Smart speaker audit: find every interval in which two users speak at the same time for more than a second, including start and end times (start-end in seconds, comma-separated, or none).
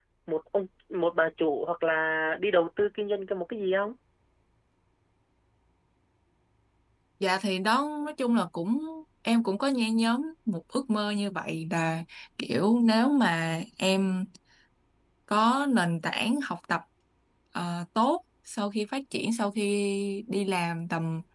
none